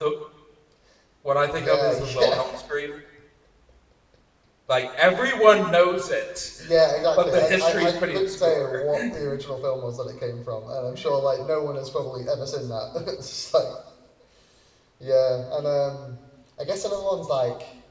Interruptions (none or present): present